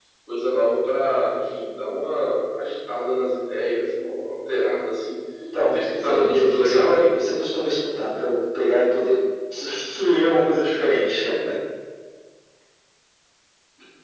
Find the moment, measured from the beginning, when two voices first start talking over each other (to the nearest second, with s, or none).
6 s